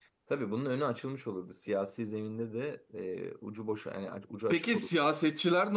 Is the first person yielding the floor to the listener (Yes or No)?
Yes